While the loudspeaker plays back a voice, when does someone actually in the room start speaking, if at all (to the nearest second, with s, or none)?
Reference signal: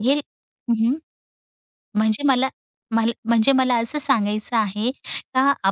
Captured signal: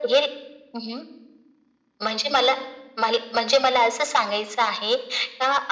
none